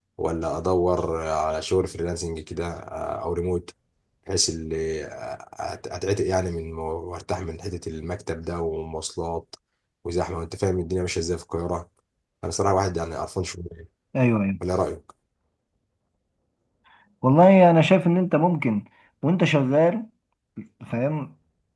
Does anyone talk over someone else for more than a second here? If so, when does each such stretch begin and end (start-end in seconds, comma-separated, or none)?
none